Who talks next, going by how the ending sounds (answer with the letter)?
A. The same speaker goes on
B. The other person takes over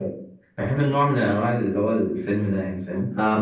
B